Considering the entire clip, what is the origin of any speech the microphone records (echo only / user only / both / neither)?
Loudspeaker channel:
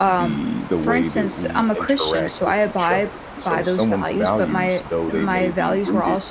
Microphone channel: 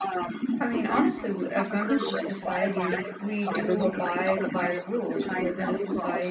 both